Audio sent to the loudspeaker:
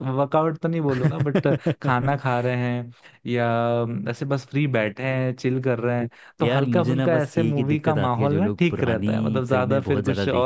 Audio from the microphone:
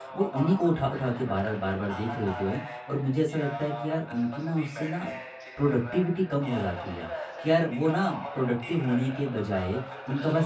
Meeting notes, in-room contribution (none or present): present